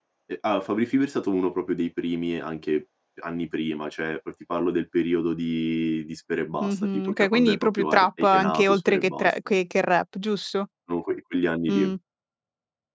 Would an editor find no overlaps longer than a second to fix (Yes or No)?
No